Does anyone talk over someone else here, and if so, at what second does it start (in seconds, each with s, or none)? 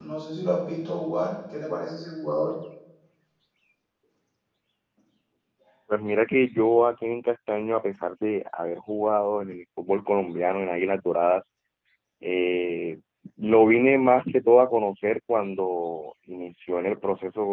none